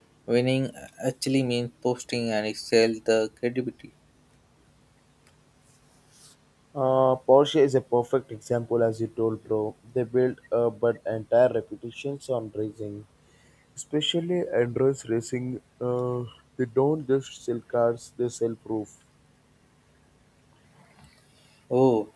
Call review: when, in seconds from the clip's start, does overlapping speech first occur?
none

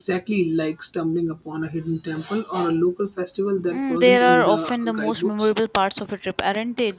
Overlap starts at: 4 s

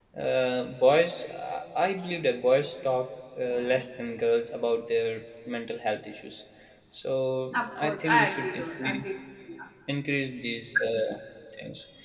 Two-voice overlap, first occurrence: 8 s

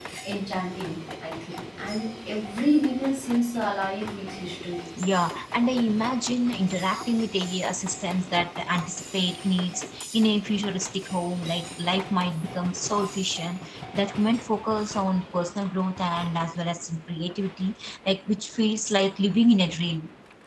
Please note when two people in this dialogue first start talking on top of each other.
none

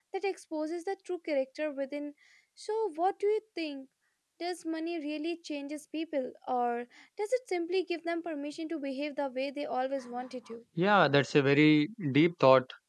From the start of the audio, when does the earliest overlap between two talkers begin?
none

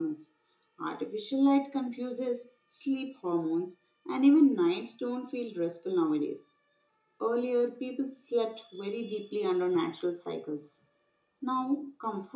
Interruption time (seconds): none

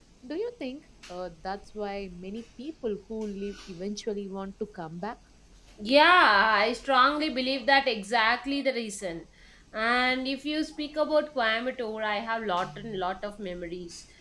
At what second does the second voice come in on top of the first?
none

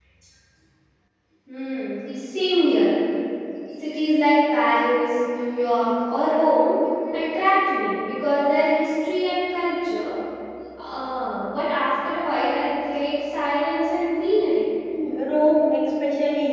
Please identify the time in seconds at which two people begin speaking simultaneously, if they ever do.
none

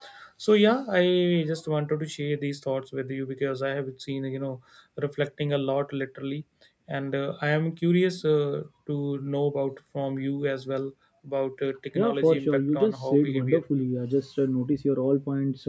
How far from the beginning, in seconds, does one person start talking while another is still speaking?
12 s

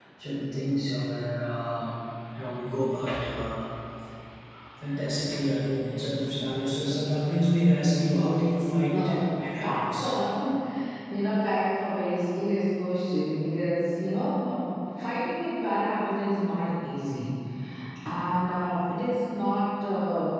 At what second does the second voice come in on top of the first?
9 s

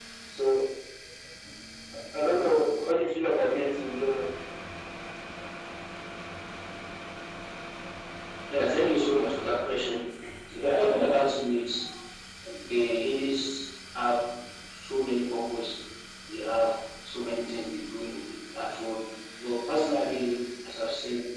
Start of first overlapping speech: none

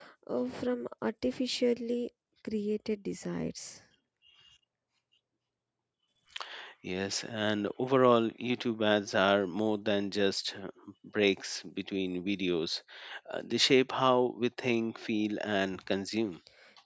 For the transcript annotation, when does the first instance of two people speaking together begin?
none

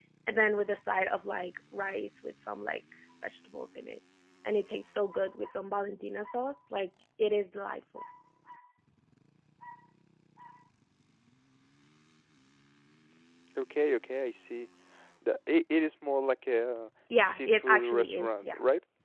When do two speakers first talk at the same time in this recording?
17 s

